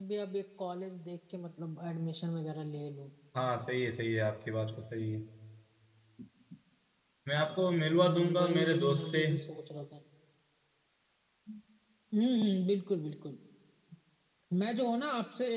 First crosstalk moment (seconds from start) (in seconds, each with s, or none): 8.0 s